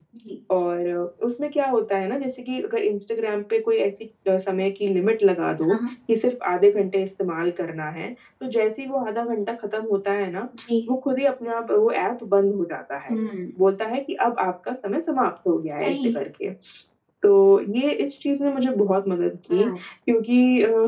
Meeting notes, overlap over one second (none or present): none